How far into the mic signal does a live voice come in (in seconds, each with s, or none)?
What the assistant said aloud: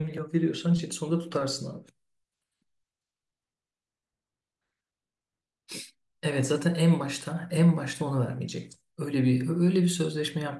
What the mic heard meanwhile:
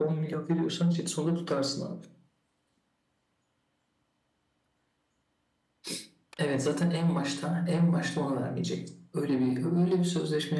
none